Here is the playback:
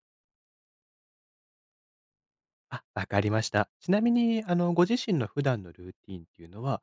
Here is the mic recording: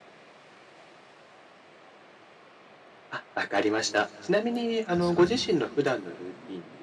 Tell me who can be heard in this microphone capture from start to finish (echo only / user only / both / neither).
both